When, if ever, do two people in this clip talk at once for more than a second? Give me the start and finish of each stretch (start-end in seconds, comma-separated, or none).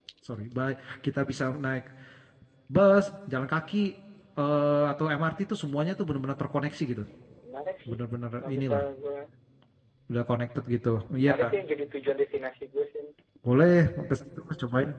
none